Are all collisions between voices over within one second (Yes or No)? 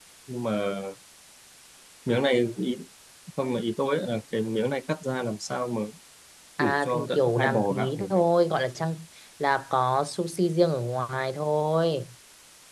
No